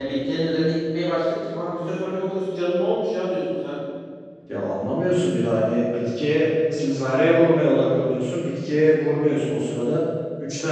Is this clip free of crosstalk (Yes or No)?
Yes